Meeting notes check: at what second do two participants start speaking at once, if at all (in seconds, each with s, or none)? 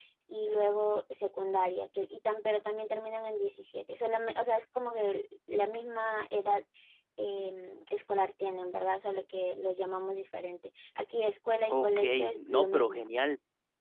11.7 s